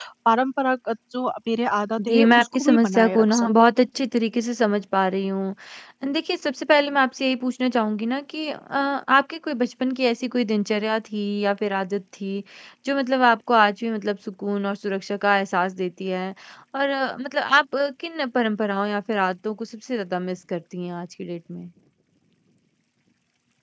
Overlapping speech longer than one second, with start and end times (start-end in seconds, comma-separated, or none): 2.1-3.5